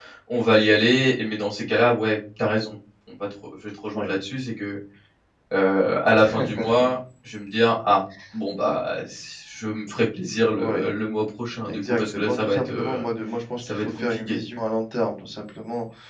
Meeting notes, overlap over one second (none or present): present